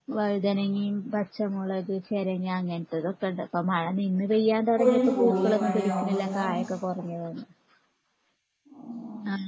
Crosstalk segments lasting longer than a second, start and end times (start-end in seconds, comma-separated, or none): 4.8-6.5